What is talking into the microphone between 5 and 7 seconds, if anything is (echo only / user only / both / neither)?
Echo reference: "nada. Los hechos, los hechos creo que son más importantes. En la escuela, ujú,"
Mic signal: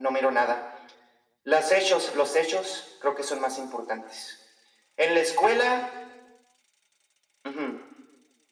echo only